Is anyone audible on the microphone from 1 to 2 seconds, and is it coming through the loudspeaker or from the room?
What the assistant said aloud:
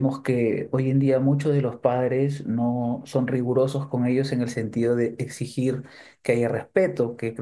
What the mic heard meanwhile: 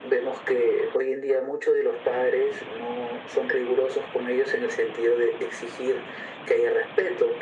echo only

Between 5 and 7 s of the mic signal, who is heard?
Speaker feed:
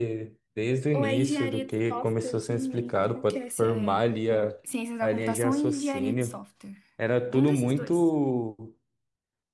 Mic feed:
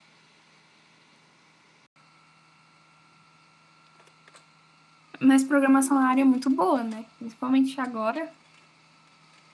user only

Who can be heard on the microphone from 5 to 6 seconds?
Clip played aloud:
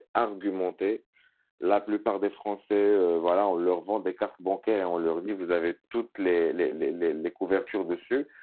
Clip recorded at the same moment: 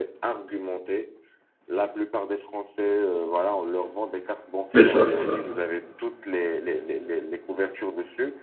both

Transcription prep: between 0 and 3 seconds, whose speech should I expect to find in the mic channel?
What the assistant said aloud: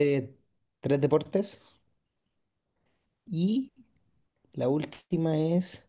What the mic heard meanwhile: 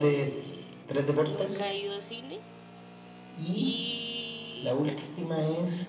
both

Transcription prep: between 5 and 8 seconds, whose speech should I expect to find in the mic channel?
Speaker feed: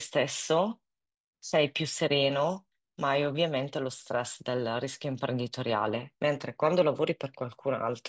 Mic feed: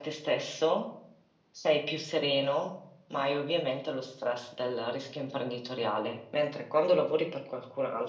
echo only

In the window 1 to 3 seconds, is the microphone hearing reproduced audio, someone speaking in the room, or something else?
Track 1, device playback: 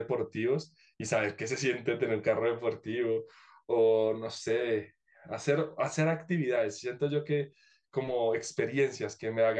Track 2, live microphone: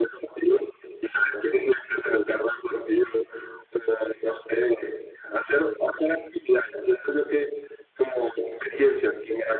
echo only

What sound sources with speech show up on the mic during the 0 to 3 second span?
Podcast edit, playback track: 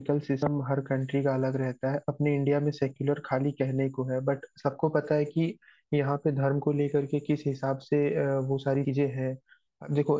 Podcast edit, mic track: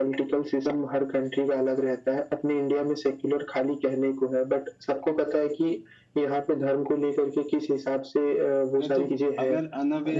echo only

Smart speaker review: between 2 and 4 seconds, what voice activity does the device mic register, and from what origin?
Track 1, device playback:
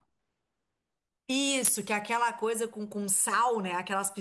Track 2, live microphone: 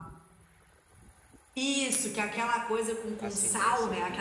both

